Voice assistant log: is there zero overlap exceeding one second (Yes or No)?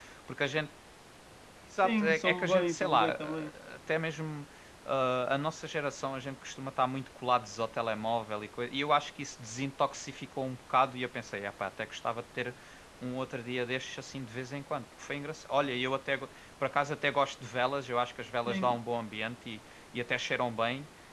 No